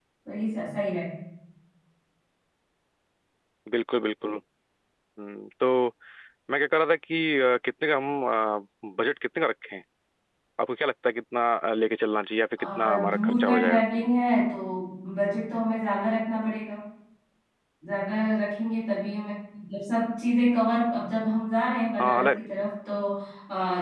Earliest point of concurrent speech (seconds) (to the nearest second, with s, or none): 13 s